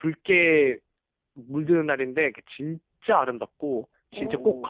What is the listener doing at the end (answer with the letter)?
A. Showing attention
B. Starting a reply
B